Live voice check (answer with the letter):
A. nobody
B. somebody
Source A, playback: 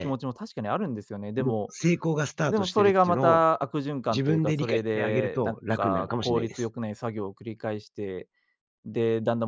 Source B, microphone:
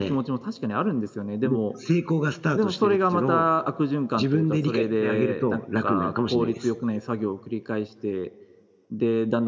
A